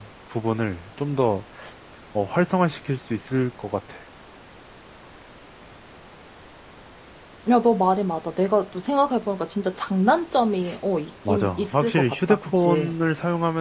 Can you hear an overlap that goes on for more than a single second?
Yes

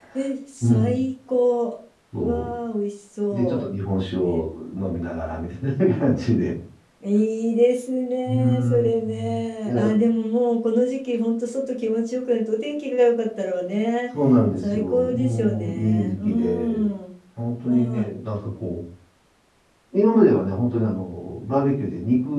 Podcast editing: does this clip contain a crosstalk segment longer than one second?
Yes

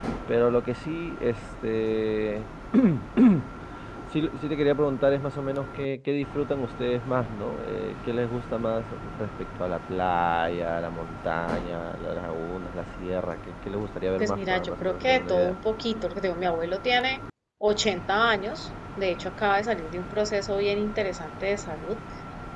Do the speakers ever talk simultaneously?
Yes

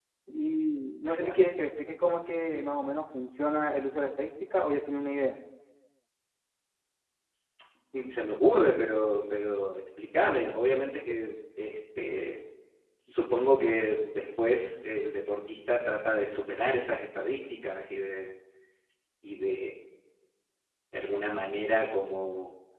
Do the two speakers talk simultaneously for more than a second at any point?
No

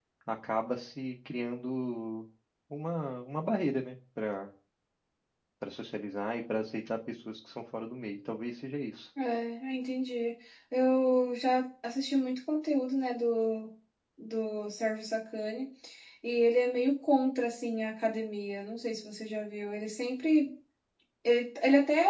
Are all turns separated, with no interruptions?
Yes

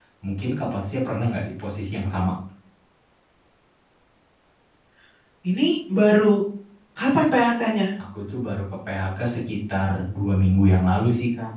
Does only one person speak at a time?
Yes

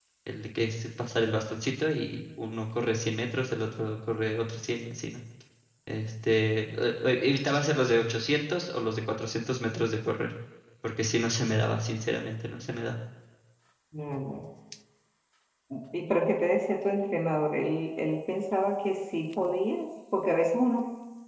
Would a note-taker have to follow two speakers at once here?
No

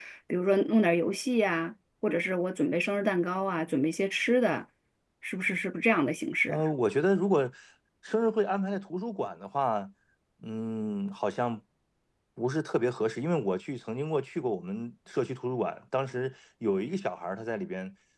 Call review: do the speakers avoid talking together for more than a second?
Yes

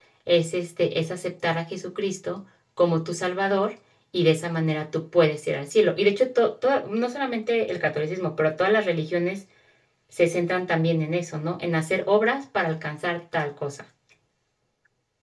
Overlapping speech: No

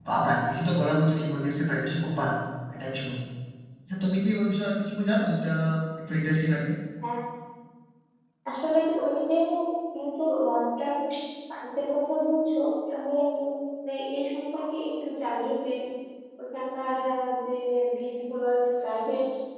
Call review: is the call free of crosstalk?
Yes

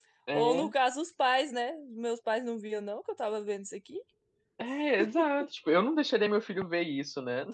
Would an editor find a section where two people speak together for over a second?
No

